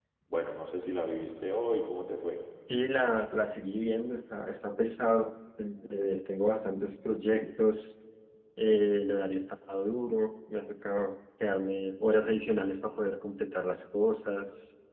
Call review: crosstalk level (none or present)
none